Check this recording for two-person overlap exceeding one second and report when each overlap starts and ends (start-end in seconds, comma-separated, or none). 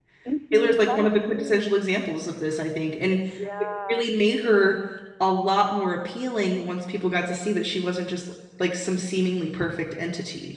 0.5-1.8